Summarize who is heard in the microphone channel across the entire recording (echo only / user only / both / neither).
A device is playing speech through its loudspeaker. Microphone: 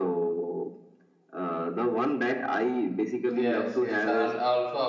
both